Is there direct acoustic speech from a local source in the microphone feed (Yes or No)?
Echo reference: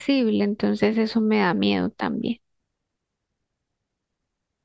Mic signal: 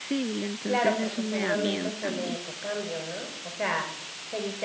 Yes